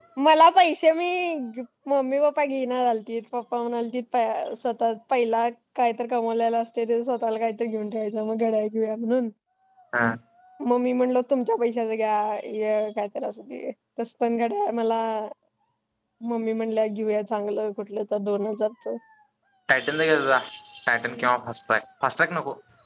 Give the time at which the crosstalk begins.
none

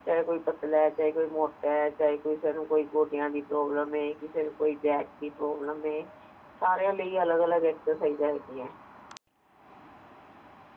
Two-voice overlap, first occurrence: none

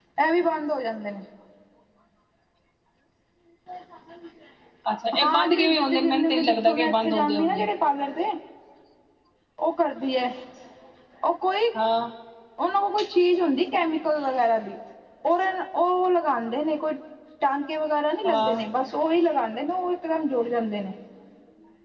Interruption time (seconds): 5.2 s

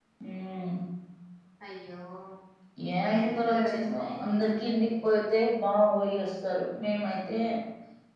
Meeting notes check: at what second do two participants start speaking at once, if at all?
3.0 s

